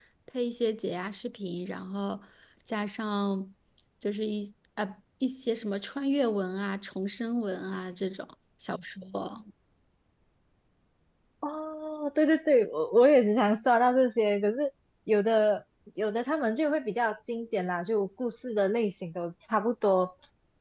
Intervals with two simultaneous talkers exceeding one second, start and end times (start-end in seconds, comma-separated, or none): none